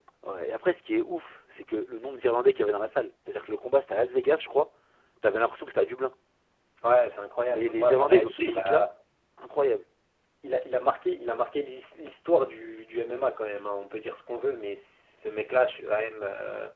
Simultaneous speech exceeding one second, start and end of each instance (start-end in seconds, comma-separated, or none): 7.5-8.9